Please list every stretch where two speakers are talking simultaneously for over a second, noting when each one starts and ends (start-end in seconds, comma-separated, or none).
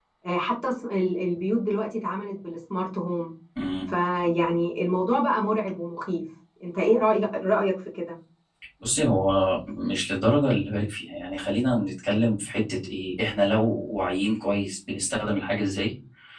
none